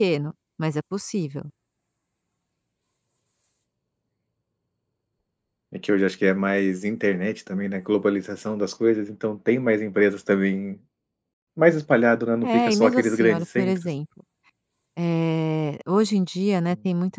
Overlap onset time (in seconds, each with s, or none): 12.4 s